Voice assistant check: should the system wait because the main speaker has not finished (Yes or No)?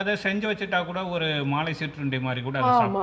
No